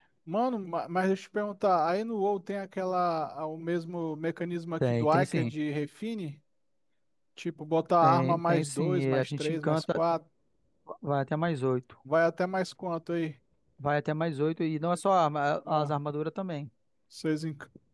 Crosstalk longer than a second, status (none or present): present